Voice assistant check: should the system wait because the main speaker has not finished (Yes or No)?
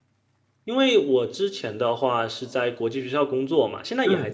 Yes